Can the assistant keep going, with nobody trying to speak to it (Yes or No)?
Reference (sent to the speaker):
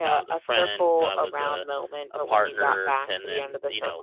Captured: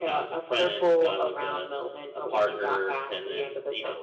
Yes